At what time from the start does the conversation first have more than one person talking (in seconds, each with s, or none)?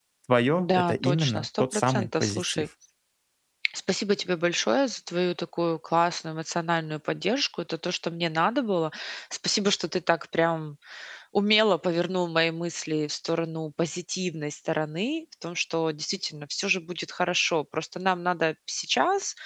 0.6 s